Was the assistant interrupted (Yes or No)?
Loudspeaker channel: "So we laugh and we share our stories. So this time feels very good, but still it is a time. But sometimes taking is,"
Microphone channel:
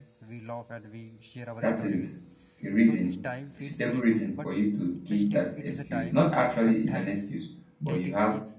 Yes